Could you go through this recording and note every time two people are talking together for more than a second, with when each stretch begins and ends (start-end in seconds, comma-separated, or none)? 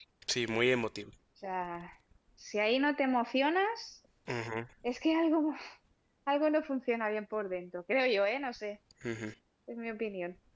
none